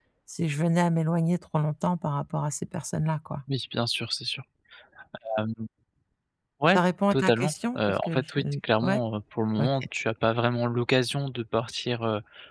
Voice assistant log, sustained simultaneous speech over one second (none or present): present